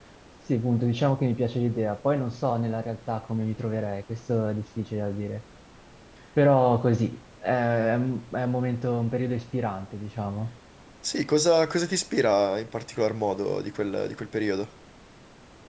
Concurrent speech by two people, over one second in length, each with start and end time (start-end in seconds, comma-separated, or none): none